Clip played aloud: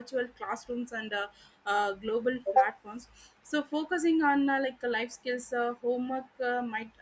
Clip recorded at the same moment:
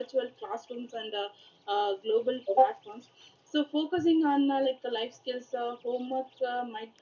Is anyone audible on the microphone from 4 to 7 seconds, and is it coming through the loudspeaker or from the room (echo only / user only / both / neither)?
echo only